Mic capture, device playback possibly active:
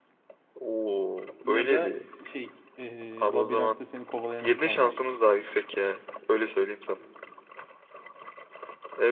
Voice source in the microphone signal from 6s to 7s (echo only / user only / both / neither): echo only